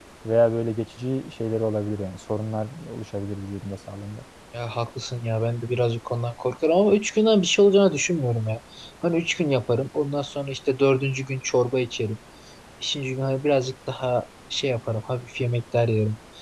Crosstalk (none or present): none